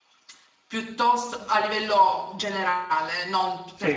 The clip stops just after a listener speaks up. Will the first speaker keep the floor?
Yes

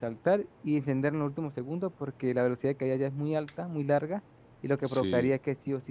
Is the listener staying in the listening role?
Yes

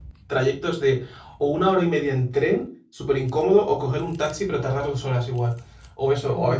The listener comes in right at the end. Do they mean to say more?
No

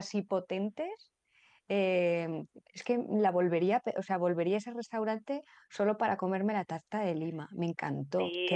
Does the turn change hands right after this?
Yes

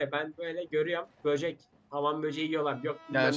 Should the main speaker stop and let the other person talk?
Yes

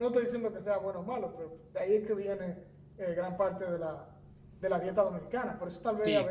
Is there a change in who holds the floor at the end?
Yes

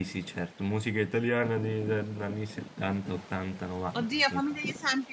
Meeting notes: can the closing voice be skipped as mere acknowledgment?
No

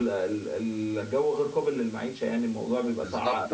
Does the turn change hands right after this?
Yes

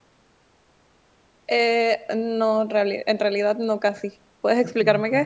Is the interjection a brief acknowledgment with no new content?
No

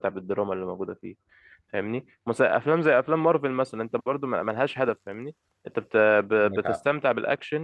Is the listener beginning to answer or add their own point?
No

